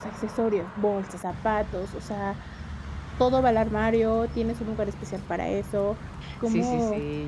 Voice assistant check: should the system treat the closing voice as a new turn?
Yes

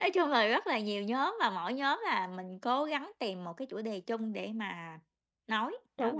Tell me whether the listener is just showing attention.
No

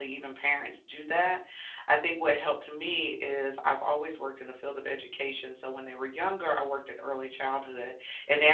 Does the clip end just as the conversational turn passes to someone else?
No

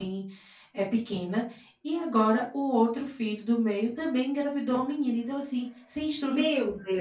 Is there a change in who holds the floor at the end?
Yes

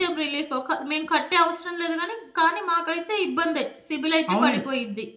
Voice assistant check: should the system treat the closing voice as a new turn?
Yes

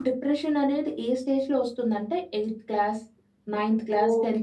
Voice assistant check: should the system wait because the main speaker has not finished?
No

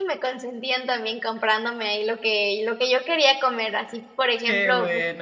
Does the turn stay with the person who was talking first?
Yes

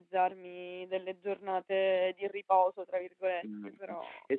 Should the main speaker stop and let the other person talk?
Yes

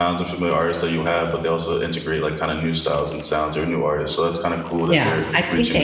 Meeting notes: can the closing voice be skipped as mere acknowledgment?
No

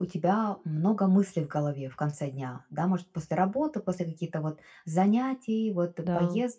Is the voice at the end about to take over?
No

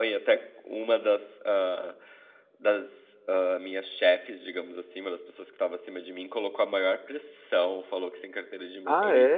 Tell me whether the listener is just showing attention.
Yes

